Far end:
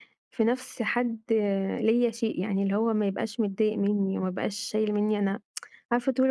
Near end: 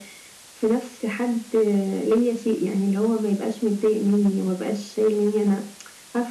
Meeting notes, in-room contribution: none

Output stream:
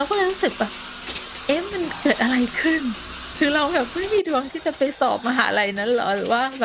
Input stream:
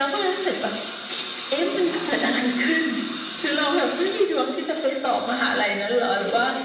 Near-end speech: none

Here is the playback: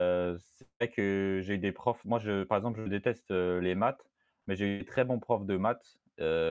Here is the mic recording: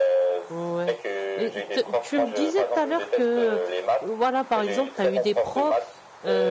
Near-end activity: present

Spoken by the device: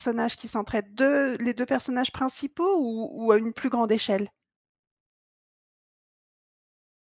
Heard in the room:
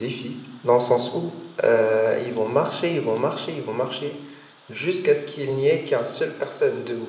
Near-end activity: present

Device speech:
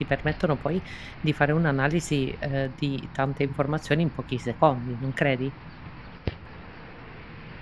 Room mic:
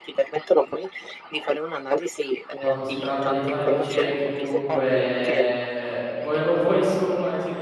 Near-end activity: present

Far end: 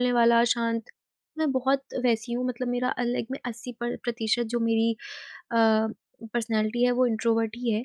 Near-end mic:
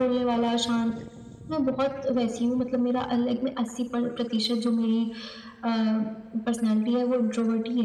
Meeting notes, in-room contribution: none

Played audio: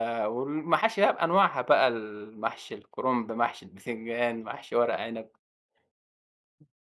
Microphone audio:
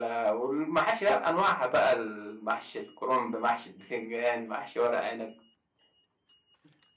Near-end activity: none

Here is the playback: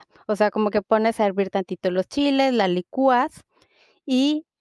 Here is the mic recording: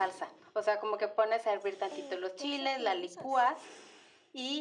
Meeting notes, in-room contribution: present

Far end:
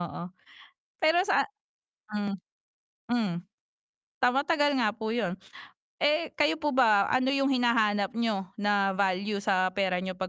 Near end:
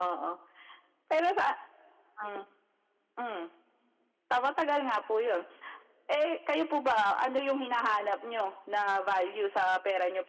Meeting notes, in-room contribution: none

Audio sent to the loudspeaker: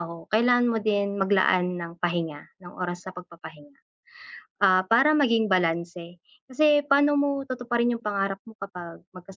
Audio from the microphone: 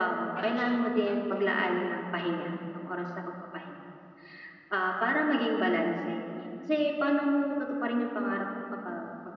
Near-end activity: present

